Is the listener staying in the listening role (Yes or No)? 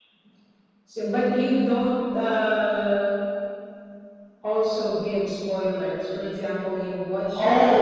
No